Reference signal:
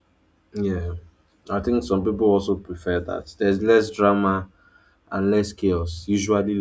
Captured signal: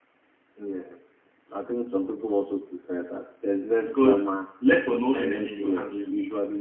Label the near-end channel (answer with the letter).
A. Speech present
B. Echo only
A